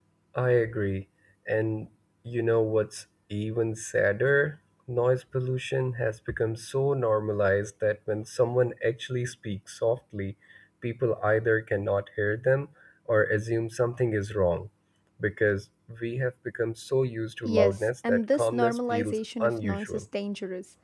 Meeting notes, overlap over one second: present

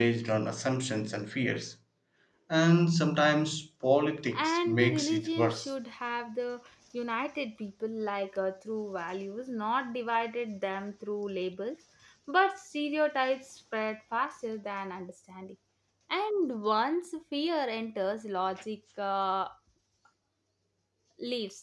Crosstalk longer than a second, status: present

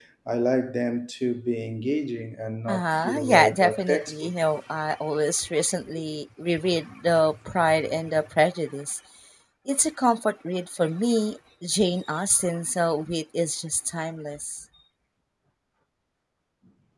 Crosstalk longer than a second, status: present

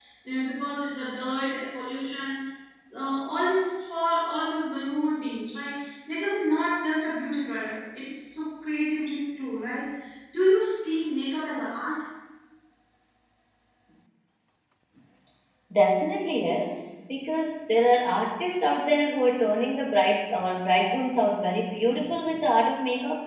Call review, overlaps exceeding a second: none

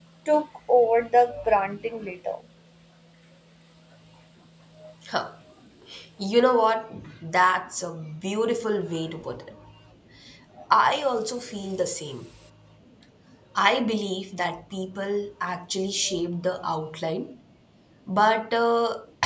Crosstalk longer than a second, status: none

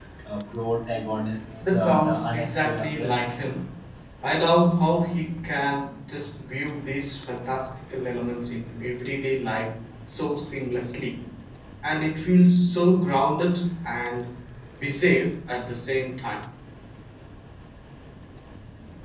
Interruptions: present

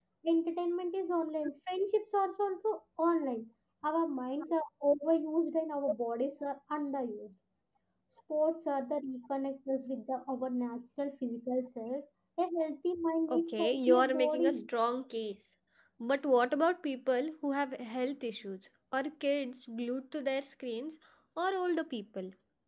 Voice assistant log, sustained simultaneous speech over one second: present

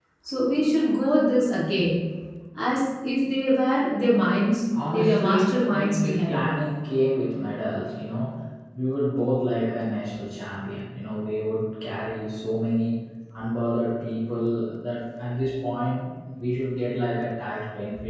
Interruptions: present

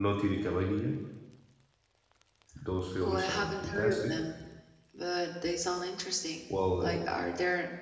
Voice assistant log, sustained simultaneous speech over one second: present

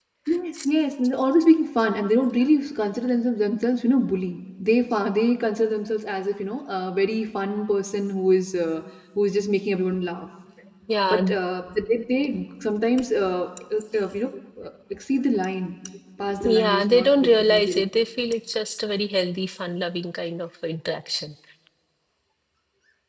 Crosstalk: present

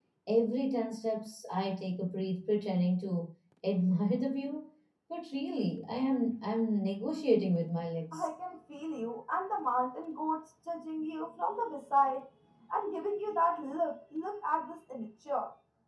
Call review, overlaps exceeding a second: none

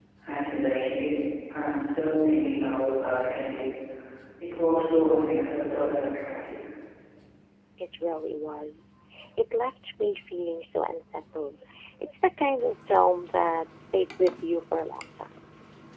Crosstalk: none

